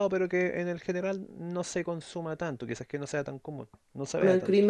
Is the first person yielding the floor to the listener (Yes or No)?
Yes